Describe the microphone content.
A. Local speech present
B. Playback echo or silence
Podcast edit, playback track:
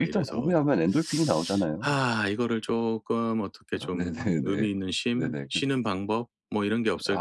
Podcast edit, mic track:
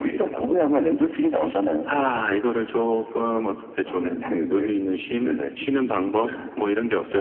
A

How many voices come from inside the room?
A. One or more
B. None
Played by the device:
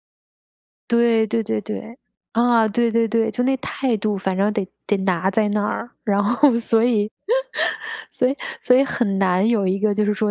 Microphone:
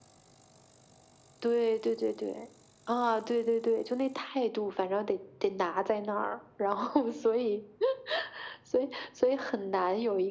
B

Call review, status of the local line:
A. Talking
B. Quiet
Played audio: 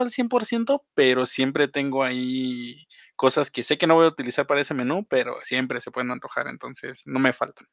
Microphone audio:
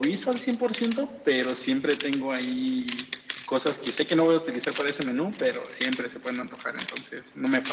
B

